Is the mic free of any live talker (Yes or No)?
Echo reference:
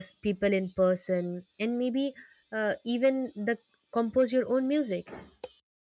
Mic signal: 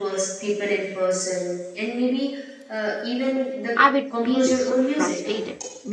No